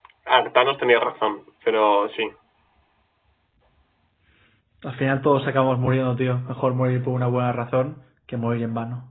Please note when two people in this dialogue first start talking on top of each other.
none

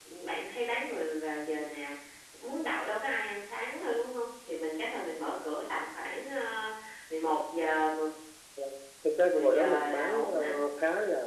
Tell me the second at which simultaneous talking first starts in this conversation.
9.3 s

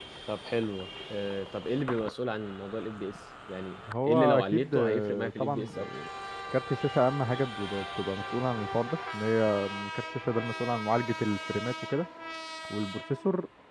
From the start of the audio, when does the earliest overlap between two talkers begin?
3.9 s

